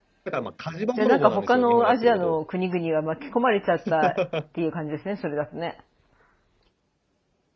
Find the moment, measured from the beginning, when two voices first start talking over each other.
0.9 s

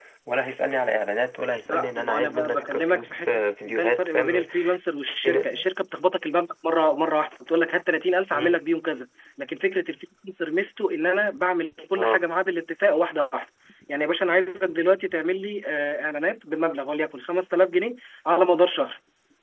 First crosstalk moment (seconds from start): 1.7 s

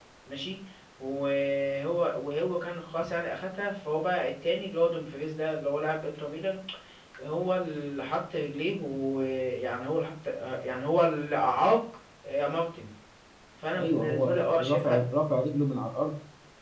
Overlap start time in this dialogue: 13.8 s

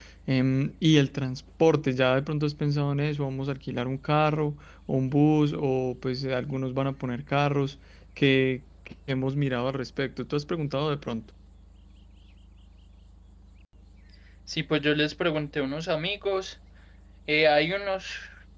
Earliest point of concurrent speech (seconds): none

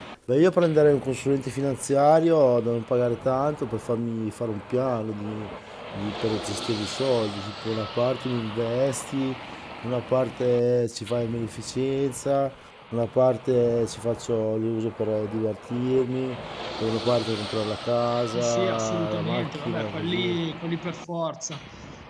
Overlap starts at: 18.3 s

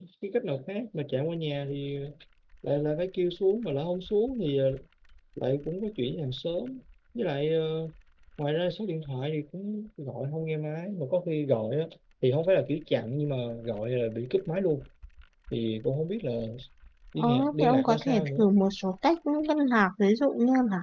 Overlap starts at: 17.2 s

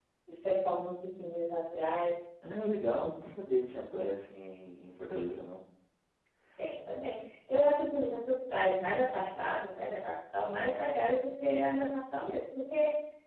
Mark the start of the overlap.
none

